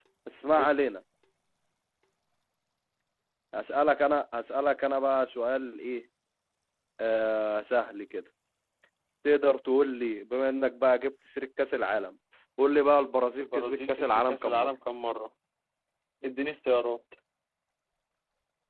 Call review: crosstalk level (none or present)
present